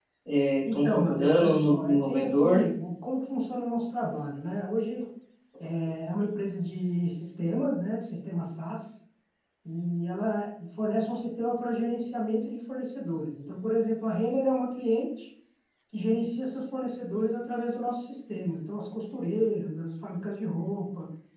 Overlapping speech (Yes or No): Yes